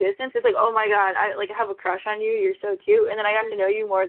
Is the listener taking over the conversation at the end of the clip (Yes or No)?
No